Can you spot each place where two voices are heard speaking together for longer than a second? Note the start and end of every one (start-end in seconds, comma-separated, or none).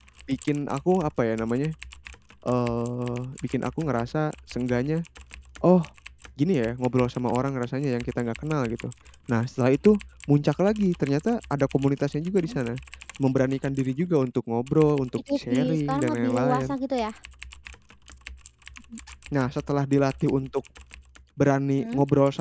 15.2-16.8